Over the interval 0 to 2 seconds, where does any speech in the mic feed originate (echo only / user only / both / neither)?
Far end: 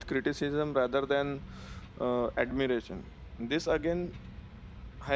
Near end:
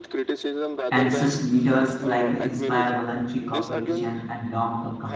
both